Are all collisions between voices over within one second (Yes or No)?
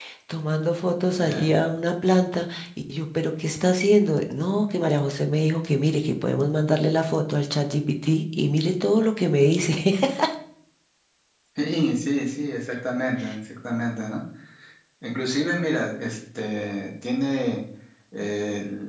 Yes